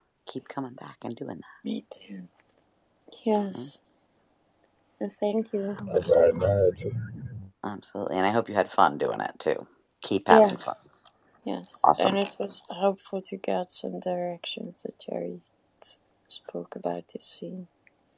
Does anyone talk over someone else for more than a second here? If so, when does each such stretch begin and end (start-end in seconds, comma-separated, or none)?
none